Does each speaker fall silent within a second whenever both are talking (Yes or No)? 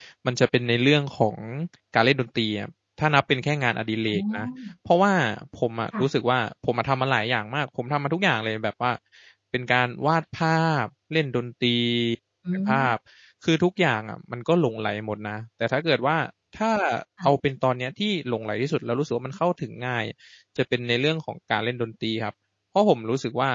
Yes